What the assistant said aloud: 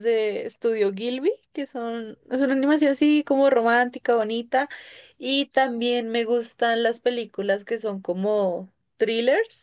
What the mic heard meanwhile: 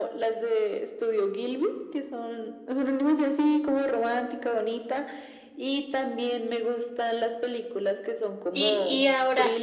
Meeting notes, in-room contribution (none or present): present